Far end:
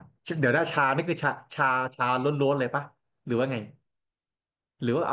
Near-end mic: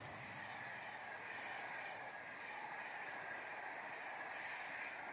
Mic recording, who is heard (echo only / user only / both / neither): neither